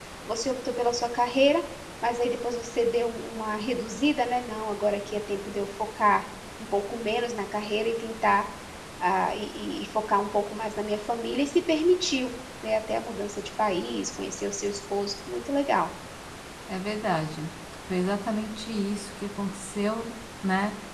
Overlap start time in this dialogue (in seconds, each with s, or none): none